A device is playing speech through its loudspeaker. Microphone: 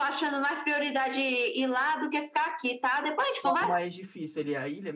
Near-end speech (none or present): present